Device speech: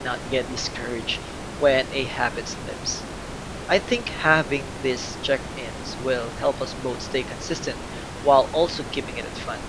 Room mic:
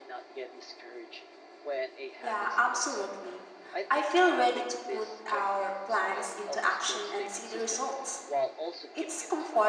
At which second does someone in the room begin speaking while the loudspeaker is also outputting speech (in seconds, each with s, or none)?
2.2 s